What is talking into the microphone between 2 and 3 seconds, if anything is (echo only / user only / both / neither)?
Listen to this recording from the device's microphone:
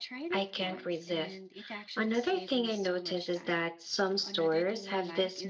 both